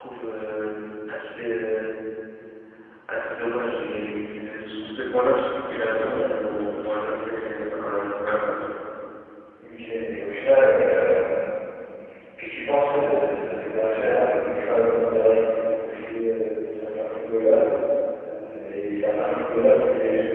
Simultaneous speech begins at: none

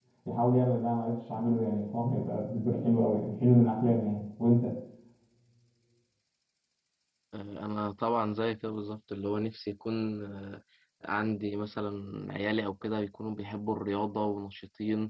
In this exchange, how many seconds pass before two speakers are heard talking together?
none

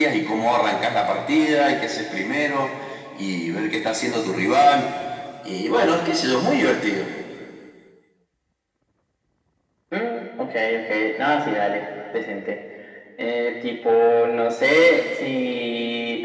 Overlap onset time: none

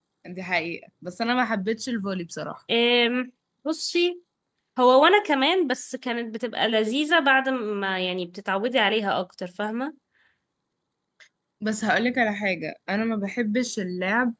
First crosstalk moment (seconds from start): none

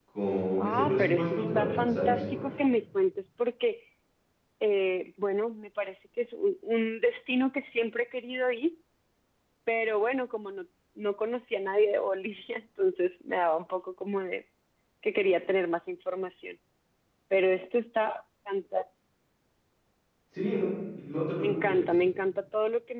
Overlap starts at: 0.6 s

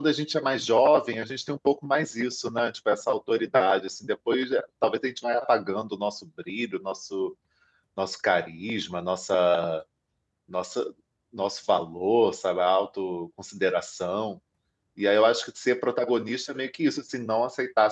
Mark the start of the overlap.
none

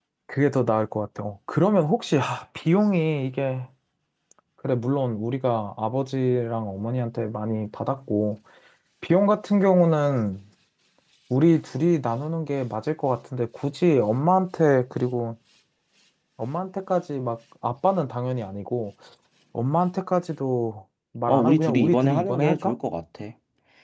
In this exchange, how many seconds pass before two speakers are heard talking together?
21.3 s

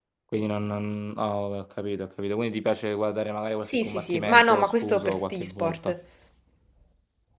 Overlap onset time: 3.6 s

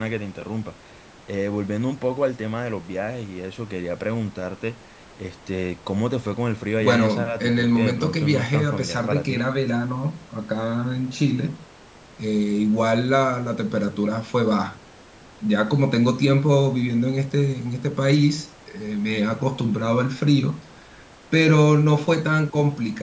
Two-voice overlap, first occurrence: 6.8 s

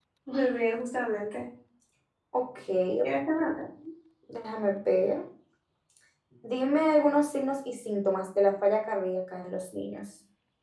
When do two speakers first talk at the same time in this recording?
none

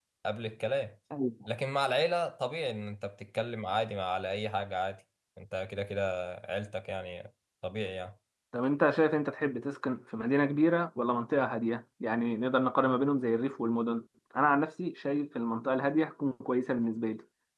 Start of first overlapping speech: none

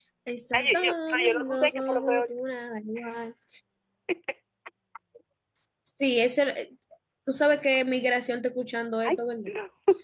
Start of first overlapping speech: 0.5 s

